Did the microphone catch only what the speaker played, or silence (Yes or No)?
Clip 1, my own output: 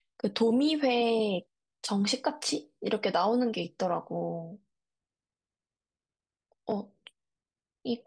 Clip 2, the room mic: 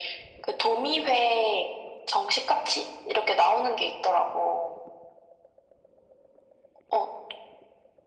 Yes